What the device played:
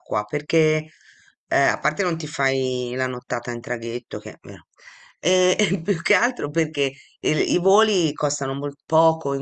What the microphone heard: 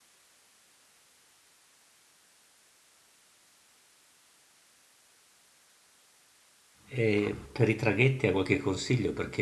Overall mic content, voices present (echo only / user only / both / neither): user only